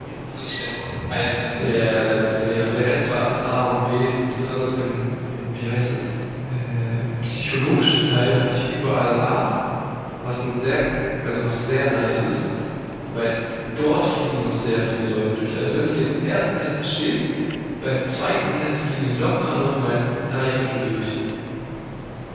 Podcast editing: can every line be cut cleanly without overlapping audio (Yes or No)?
No